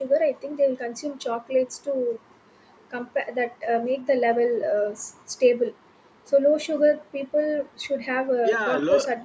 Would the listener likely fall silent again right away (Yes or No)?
No